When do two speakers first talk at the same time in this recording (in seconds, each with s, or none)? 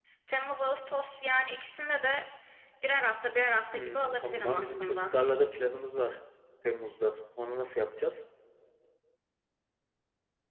3.7 s